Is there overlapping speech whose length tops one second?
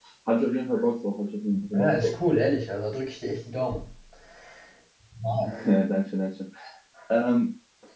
No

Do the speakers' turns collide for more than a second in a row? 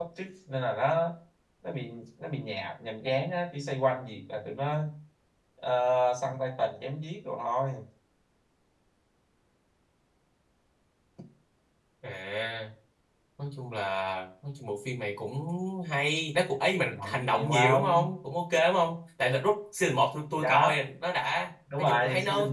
Yes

